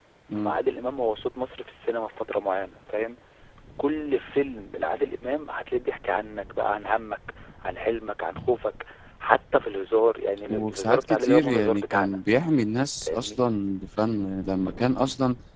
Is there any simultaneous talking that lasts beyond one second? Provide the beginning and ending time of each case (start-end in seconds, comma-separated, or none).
10.5-12.2